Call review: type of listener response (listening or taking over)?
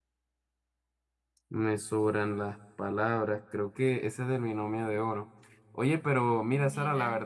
listening